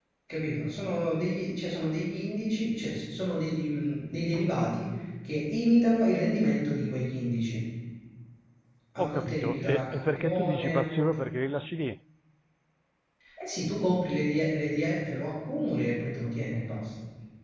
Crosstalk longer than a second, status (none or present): present